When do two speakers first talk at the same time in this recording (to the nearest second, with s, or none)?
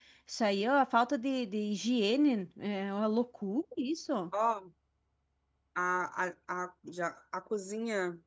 none